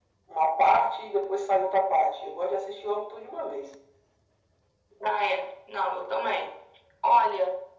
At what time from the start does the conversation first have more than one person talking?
none

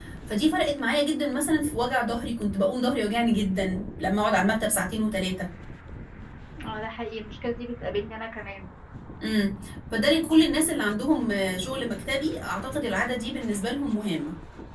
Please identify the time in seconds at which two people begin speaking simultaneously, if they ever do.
none

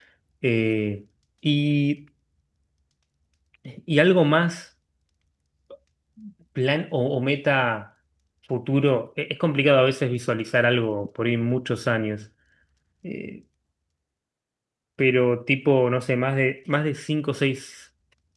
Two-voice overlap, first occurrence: none

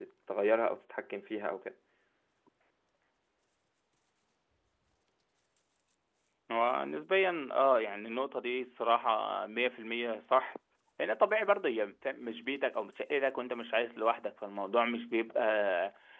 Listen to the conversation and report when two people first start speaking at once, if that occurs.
none

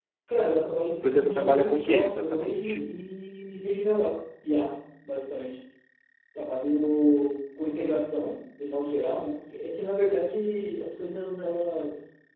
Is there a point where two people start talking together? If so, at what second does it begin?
1 s

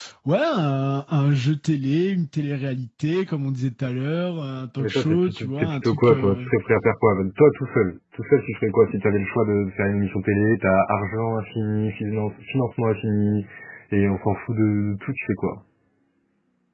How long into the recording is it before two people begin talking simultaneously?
5 s

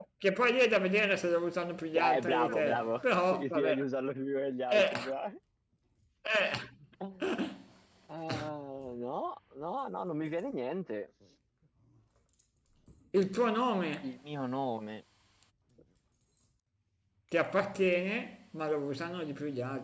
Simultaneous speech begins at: 2 s

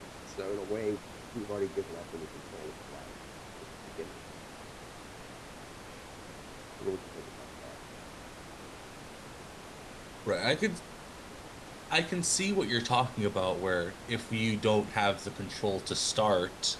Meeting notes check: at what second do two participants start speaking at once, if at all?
none

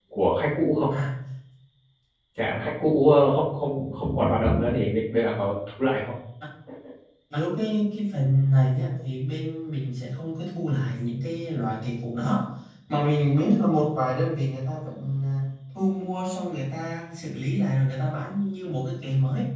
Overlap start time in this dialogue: none

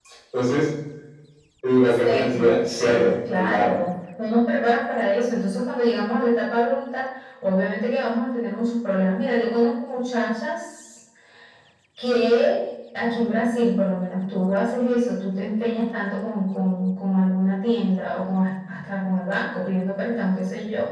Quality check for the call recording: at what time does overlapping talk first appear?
2 s

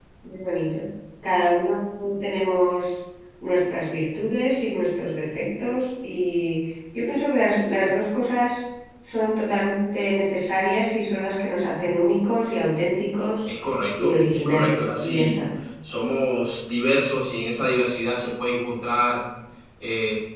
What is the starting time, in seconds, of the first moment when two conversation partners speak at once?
14 s

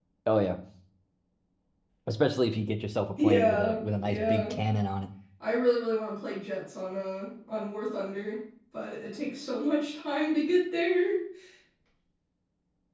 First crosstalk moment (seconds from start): 3 s

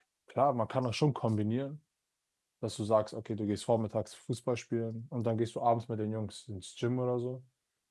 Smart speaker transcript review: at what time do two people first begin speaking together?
none

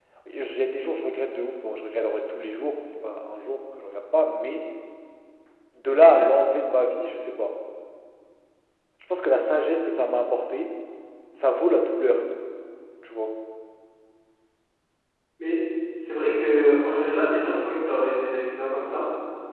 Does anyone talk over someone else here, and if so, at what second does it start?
none

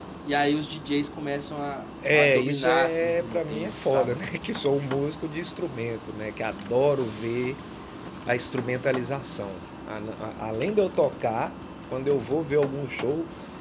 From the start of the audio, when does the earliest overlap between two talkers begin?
2 s

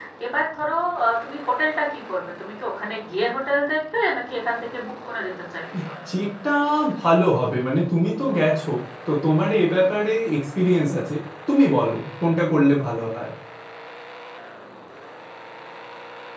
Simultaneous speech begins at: none

